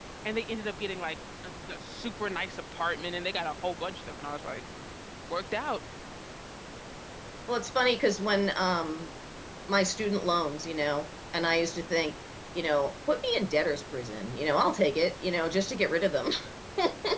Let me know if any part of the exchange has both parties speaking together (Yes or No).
No